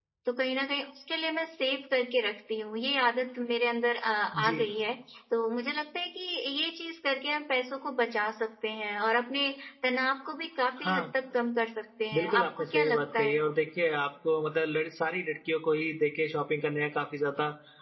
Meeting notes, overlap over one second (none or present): present